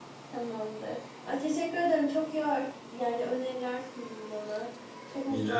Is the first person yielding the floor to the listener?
Yes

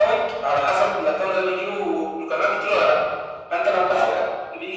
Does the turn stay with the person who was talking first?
Yes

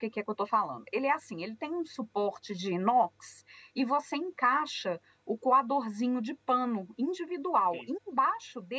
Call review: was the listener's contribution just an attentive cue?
Yes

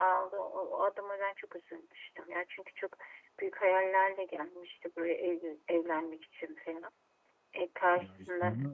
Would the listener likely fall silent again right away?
No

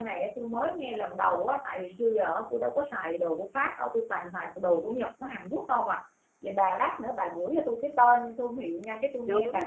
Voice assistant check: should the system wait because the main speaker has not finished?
No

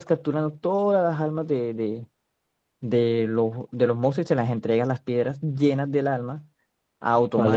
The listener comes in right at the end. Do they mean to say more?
Yes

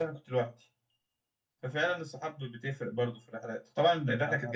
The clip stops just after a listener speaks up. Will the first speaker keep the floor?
Yes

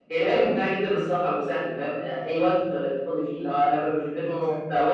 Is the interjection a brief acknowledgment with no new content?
Yes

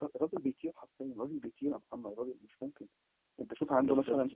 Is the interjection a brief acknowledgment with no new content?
Yes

